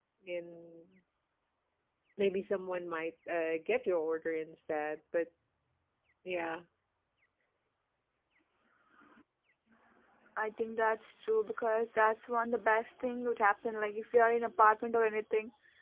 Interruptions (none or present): none